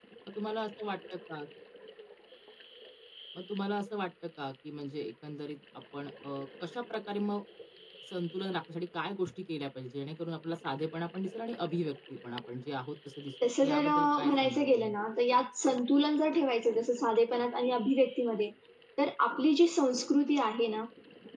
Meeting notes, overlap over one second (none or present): present